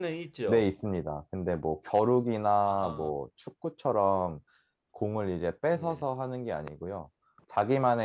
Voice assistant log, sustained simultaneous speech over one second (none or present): none